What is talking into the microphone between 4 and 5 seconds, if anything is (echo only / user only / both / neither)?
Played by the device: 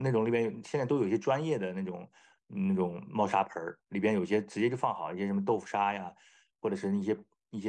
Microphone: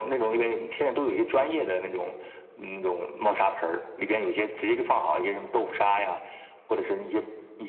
echo only